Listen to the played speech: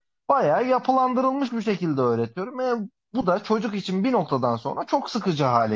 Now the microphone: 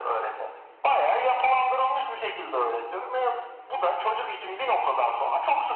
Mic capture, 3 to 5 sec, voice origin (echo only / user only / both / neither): echo only